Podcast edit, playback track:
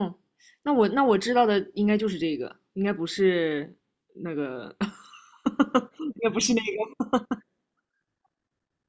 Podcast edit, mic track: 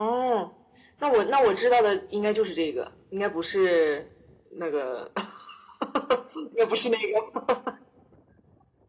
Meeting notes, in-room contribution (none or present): none